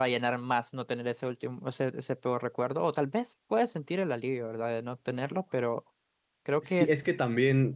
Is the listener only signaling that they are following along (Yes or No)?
No